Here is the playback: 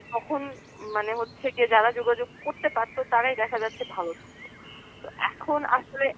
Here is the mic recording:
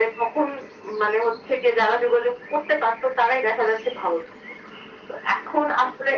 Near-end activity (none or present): none